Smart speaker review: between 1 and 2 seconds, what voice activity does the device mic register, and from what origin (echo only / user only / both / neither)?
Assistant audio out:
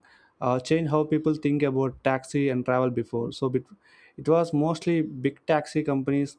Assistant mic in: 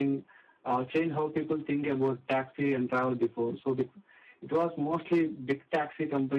echo only